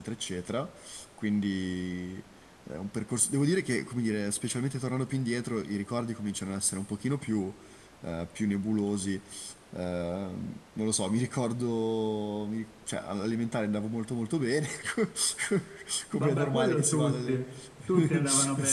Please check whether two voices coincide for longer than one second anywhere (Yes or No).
Yes